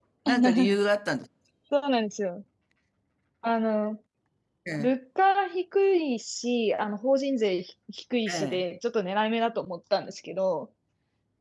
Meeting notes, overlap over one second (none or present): none